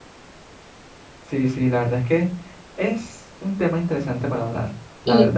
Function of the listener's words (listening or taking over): taking over